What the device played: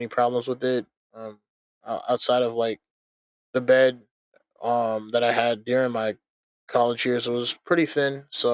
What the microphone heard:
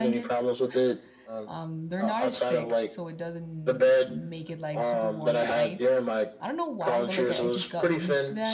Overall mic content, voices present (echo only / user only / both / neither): both